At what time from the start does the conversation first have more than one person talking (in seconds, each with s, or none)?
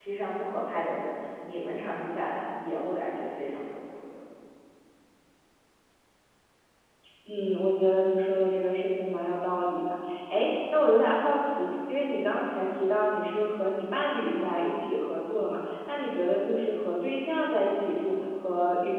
none